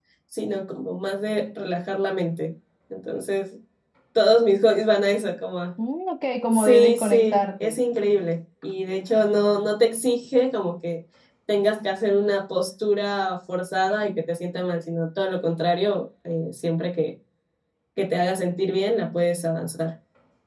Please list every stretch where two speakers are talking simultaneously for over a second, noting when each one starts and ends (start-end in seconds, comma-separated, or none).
6.5-7.8